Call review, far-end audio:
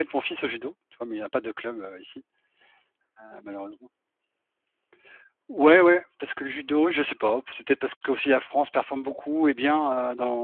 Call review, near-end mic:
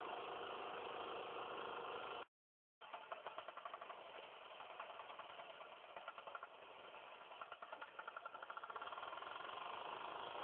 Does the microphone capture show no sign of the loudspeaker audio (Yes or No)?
Yes